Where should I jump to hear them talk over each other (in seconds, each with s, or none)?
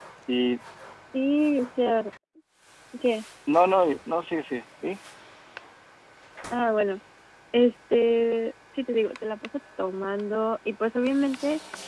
none